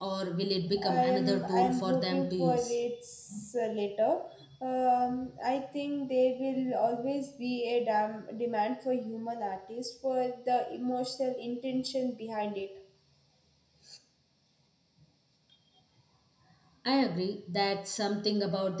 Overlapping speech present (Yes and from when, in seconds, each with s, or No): Yes, from 0.8 s